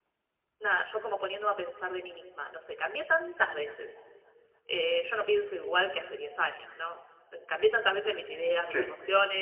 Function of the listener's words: listening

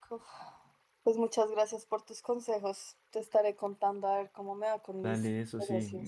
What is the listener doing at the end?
taking over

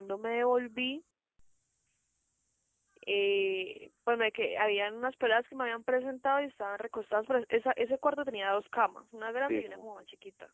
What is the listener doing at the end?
listening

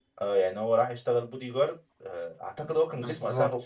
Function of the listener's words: taking over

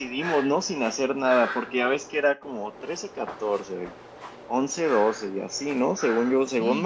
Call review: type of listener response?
taking over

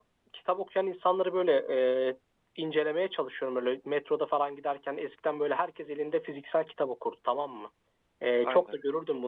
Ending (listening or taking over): listening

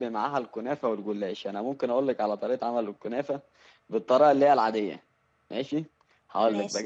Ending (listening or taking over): listening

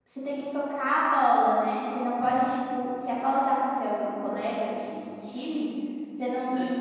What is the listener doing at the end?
listening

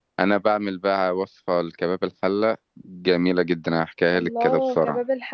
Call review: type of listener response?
taking over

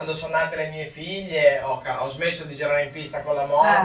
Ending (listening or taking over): listening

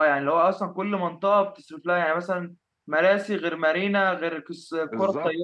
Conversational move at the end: taking over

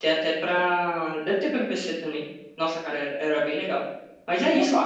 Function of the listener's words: taking over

